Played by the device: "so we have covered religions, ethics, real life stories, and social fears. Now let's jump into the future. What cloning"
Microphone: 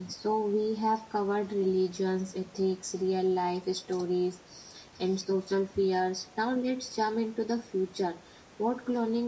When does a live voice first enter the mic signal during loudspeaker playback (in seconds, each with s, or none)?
none